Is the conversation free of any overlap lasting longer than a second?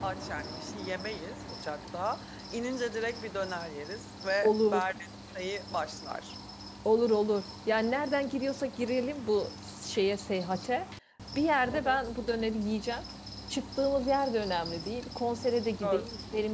Yes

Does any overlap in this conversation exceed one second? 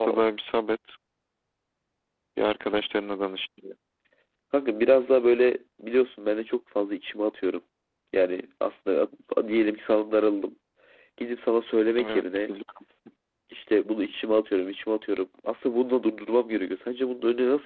No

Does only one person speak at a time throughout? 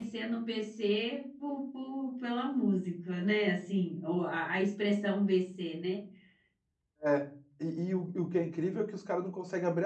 Yes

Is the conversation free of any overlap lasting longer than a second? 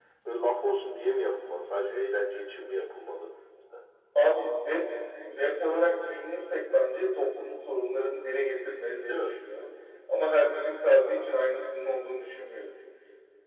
Yes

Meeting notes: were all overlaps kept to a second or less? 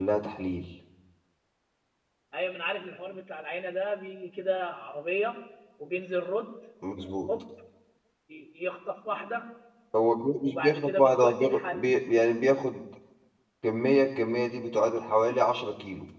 No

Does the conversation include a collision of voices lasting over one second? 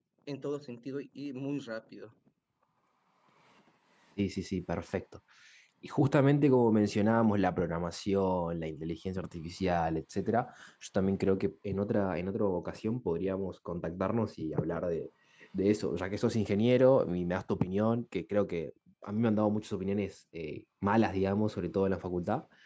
No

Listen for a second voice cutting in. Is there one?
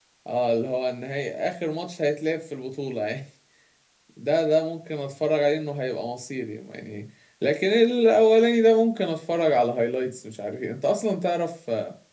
No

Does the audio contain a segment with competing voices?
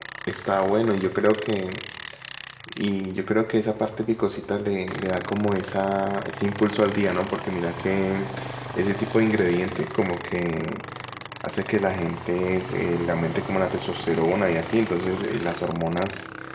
No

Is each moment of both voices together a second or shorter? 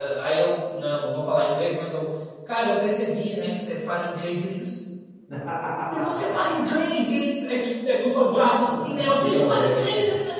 No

